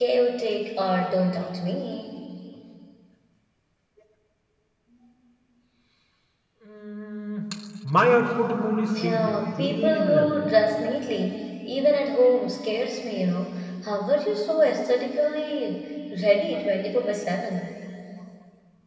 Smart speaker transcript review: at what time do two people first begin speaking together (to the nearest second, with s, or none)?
9 s